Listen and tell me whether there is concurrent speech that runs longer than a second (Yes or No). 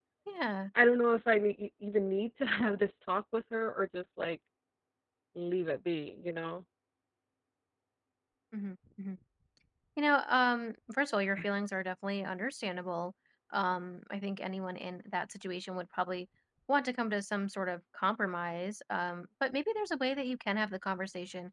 No